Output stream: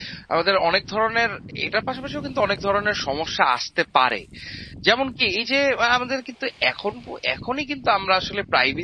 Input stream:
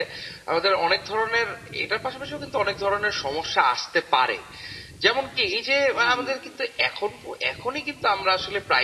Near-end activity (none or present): present